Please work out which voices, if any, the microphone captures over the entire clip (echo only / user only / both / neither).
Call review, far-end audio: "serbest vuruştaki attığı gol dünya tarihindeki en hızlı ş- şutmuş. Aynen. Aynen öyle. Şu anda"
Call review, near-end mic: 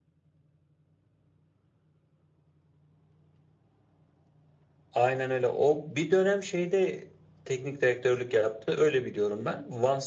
user only